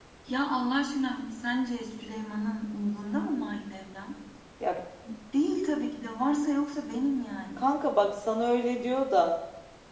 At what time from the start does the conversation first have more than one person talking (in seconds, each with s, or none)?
none